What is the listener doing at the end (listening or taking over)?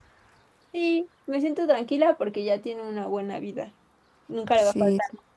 listening